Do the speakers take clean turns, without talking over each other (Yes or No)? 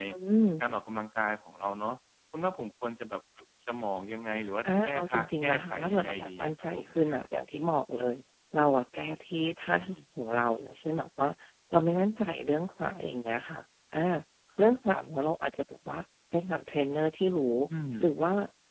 No